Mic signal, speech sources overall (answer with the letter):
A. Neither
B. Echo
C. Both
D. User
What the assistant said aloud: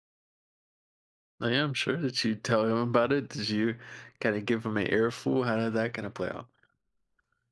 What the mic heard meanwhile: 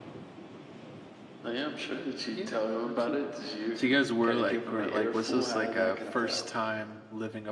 C